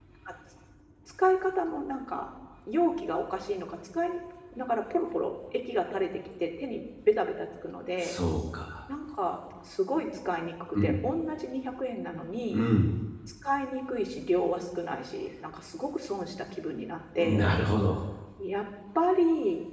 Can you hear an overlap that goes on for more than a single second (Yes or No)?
No